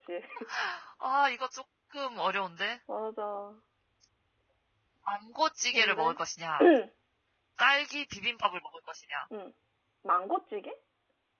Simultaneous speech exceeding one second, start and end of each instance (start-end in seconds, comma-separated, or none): none